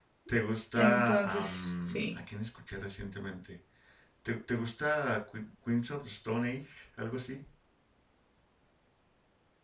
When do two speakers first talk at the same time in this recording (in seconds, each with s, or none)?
0.8 s